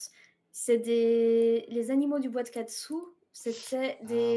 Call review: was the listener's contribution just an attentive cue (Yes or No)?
No